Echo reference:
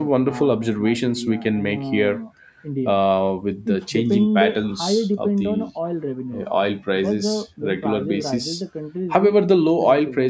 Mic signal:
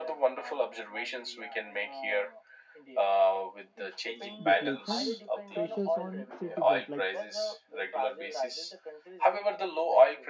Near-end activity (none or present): present